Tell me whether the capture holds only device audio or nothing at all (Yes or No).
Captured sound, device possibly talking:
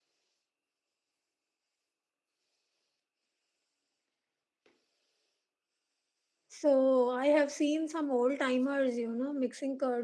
No